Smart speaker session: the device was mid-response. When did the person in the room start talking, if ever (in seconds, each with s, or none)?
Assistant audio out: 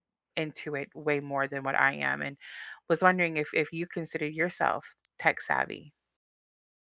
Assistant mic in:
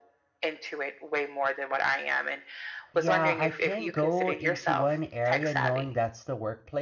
2.9 s